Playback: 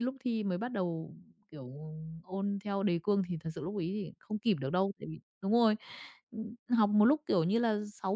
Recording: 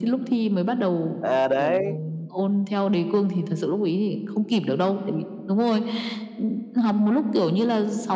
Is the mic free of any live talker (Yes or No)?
No